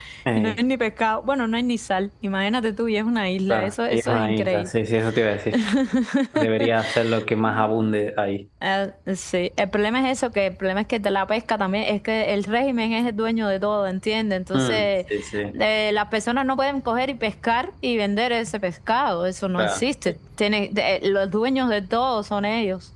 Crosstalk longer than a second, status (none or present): present